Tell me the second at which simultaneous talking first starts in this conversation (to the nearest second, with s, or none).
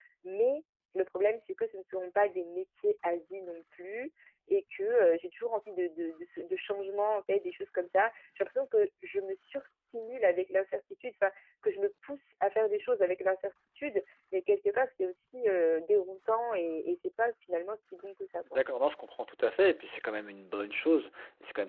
none